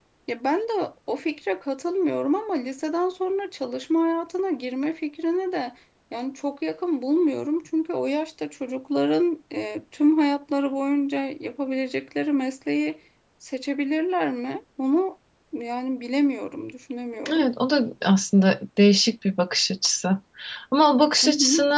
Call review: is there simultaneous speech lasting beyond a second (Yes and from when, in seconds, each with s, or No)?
No